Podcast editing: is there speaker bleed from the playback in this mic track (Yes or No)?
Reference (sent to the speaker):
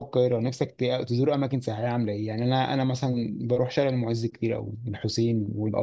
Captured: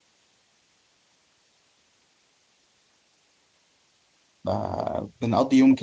No